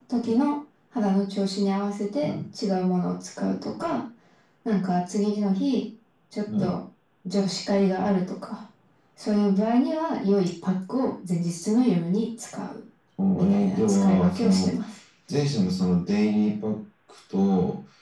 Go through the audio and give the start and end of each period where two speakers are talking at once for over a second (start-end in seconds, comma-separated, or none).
13.3-14.7